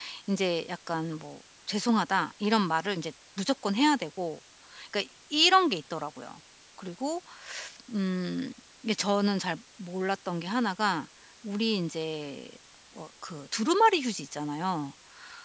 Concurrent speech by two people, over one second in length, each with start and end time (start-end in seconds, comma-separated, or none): none